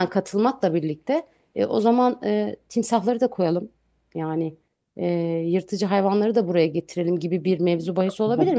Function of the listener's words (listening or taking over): listening